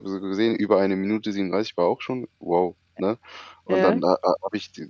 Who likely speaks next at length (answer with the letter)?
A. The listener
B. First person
B